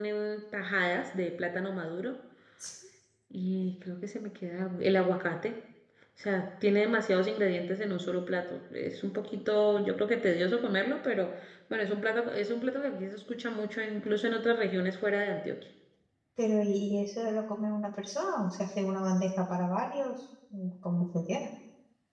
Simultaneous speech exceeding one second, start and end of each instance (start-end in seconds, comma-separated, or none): none